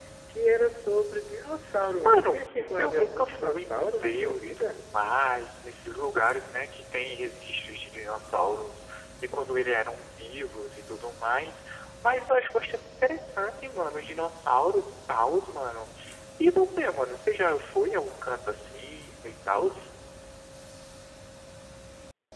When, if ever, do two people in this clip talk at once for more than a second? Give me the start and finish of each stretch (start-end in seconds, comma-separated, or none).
2.0-4.8